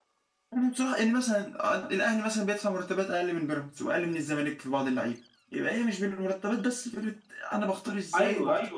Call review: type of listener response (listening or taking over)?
taking over